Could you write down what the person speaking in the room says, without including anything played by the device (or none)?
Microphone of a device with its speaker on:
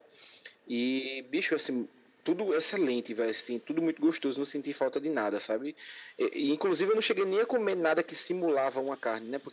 none